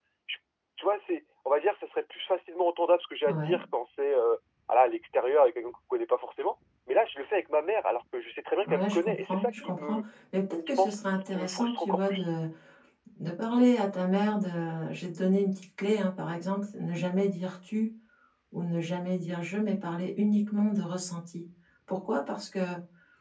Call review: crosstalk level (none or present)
present